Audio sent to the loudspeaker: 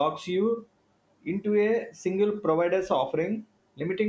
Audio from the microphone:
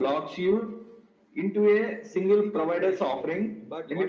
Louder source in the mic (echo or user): echo